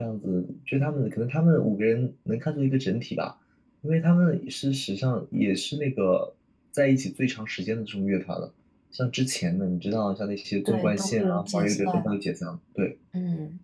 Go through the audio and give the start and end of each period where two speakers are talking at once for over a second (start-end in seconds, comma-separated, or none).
10.6-12.1